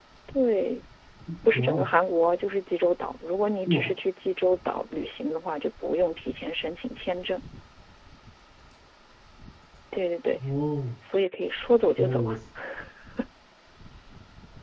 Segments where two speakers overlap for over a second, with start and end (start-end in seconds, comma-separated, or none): none